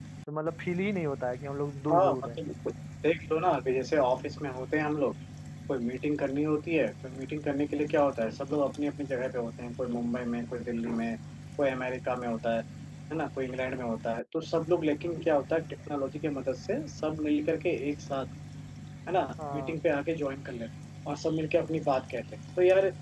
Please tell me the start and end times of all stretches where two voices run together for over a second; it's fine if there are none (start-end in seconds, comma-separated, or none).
none